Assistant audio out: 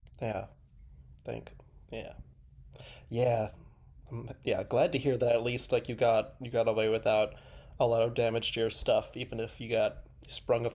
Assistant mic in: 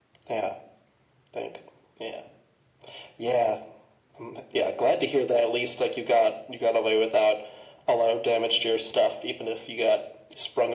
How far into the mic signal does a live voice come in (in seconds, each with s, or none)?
none